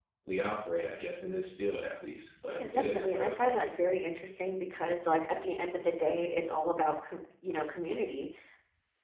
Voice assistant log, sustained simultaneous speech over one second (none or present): present